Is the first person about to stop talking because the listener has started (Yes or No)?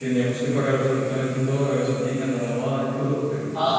Yes